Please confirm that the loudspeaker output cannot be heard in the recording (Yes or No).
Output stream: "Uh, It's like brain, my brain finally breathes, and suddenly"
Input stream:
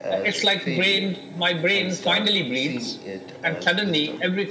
No